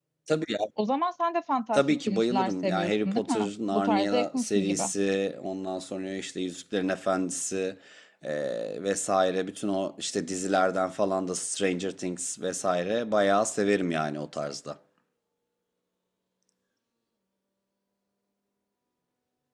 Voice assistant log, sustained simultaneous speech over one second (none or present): present